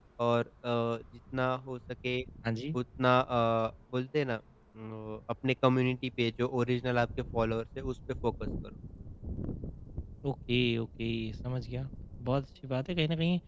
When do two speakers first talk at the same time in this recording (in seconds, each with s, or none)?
none